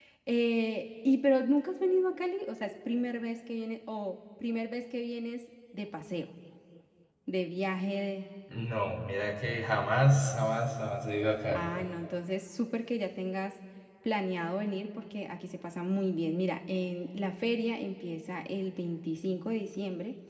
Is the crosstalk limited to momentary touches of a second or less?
Yes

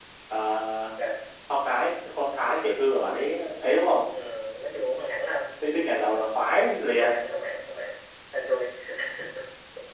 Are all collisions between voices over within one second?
Yes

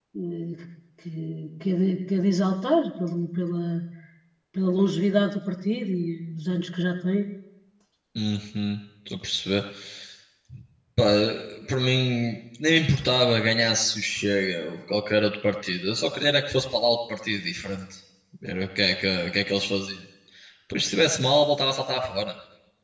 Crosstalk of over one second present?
No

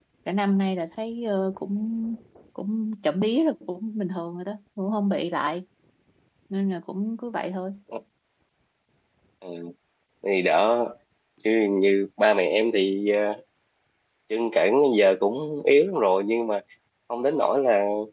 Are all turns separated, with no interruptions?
Yes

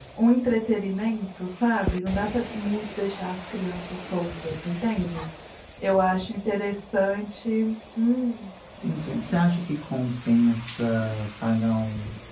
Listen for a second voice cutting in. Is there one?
No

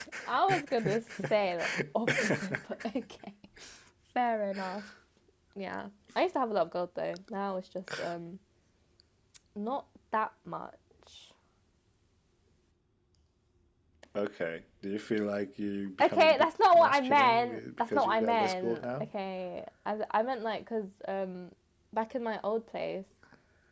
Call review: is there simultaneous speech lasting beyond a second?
Yes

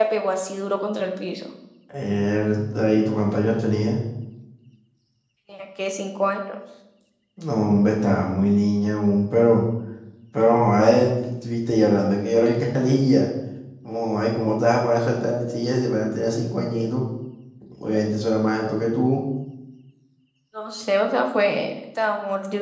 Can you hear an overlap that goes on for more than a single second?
No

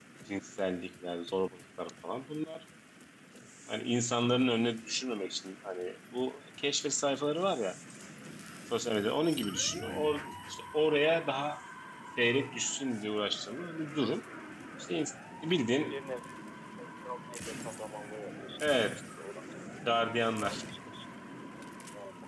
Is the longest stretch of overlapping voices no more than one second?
Yes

